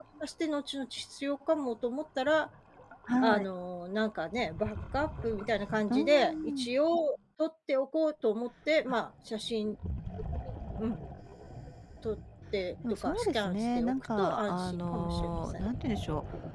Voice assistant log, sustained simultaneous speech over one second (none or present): present